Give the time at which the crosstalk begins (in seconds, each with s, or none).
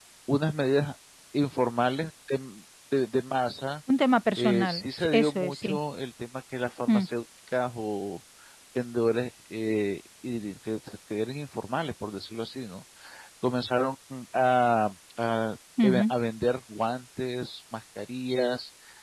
4.4 s